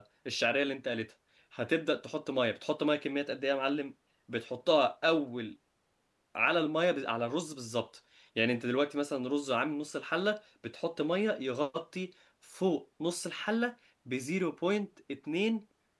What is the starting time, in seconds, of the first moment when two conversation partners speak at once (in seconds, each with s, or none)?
none